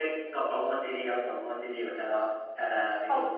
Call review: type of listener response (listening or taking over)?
taking over